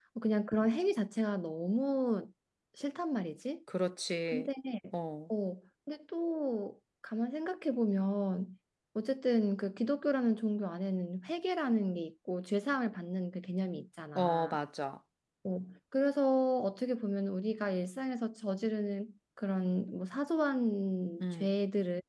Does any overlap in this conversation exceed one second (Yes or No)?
No